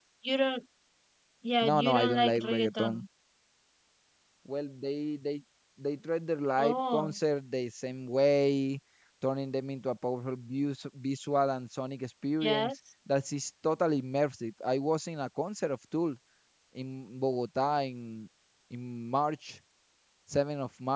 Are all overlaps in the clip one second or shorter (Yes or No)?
No